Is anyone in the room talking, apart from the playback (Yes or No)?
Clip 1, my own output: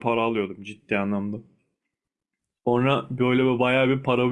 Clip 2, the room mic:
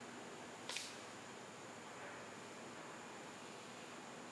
No